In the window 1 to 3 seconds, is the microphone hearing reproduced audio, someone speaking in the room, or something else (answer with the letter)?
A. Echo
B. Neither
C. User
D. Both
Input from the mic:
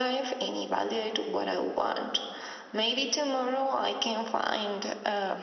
A